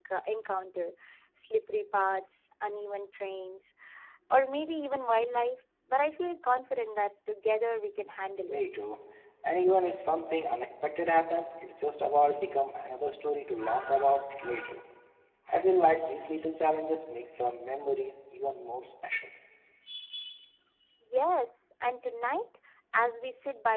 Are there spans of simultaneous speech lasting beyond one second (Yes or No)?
No